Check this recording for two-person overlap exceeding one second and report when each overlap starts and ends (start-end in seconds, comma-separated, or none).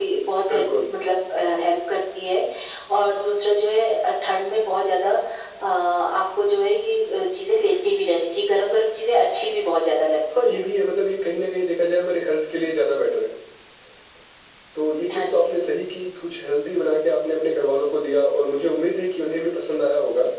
none